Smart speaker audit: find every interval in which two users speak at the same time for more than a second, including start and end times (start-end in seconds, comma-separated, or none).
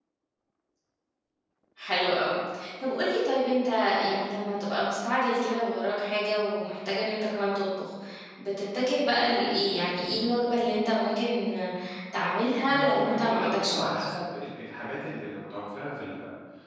12.7-14.1